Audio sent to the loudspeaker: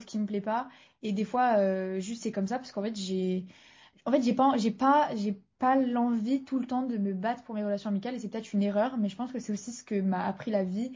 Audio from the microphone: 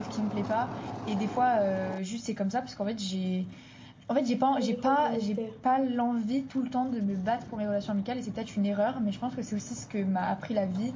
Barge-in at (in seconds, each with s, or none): 4.6 s